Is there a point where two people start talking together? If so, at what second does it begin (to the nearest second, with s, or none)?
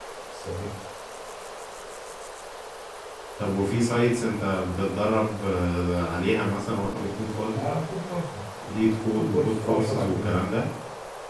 9 s